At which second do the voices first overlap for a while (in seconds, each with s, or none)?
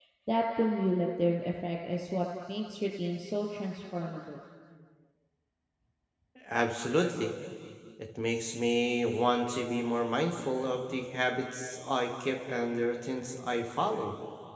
none